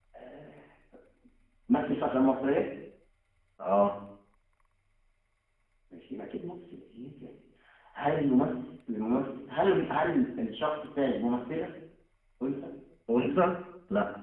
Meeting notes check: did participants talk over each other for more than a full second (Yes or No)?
No